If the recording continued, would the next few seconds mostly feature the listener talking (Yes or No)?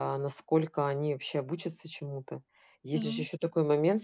No